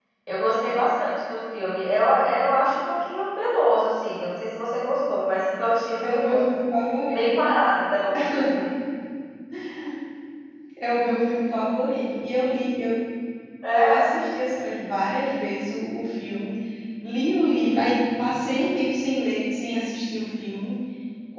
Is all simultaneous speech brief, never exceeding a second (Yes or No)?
Yes